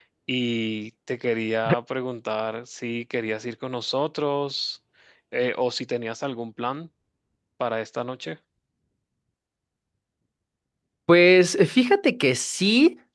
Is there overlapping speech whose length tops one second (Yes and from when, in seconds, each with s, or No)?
No